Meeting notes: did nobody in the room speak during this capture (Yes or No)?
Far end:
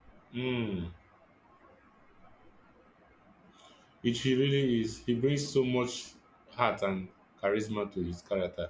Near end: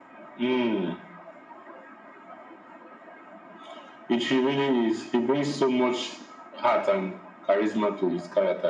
Yes